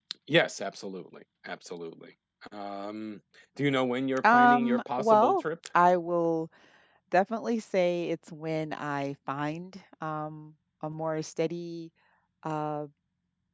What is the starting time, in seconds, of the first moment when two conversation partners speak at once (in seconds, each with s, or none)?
4.2 s